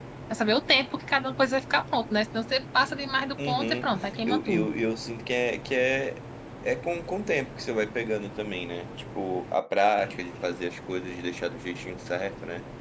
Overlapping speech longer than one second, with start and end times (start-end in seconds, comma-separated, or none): 3.5-4.7